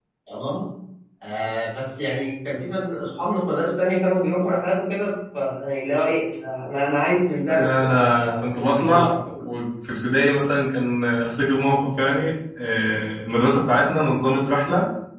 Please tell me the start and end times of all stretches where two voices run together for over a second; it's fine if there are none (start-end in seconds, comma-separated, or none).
7.5-9.2